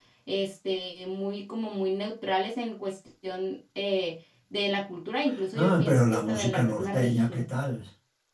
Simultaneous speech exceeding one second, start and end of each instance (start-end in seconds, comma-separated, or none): 5.6-7.5